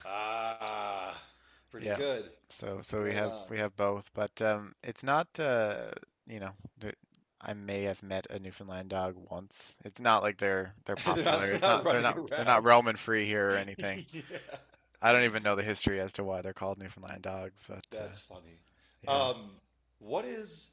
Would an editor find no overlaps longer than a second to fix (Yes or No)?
No